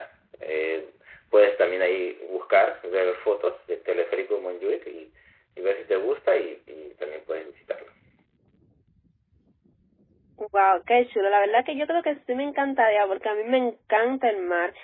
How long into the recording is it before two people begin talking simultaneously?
none

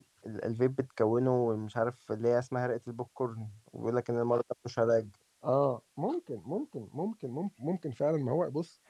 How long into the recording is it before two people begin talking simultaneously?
none

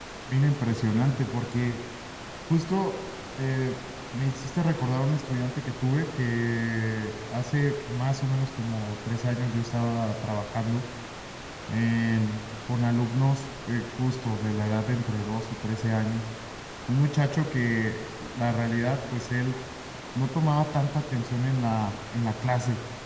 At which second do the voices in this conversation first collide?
none

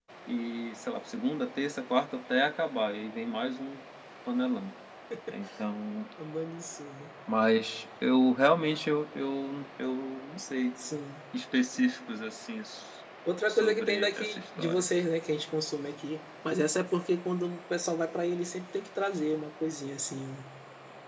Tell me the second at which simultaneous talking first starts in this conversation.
13.5 s

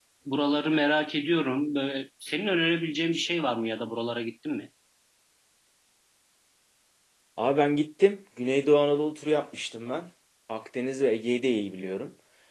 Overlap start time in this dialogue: none

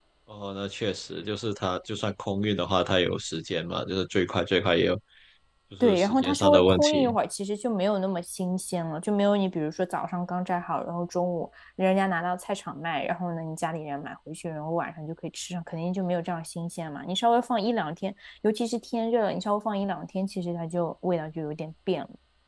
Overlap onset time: 5.8 s

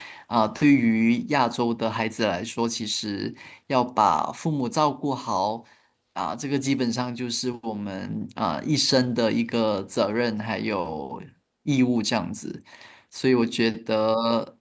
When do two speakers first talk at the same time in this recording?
none

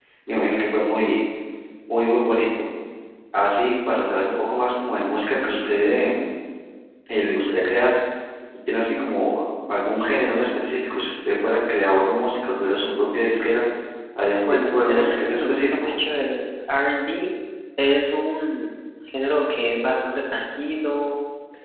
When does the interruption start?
14.5 s

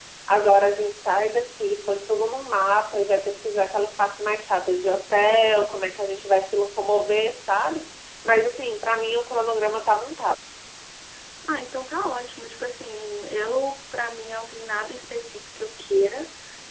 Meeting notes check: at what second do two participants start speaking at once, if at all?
none

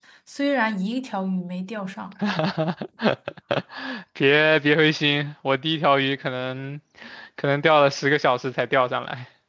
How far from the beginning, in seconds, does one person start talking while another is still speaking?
none

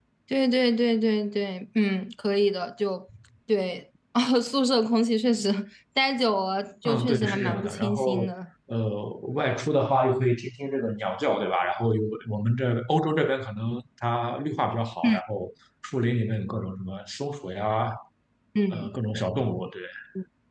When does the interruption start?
6.8 s

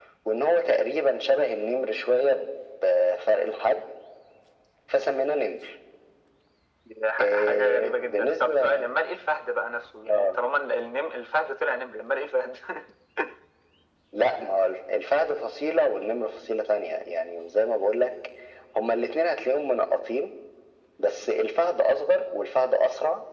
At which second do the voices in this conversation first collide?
7.2 s

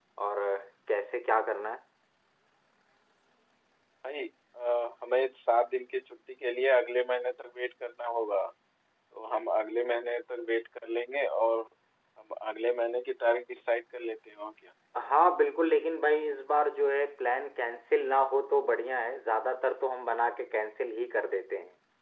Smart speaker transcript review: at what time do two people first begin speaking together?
none

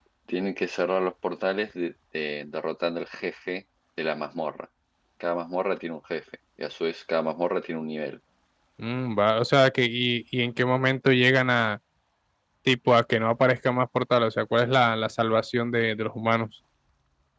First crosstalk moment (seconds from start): none

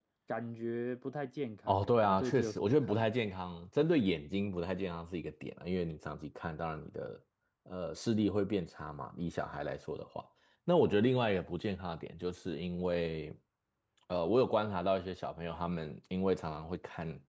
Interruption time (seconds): 1.7 s

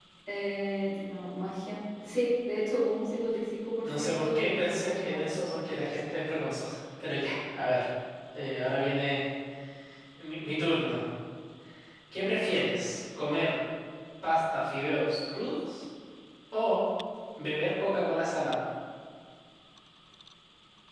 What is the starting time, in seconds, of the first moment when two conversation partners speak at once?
3.8 s

